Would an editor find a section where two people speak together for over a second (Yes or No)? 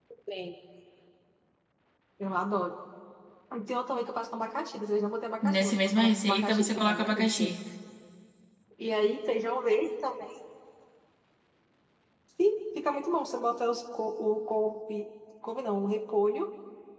Yes